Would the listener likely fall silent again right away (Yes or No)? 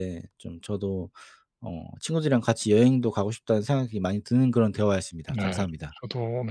No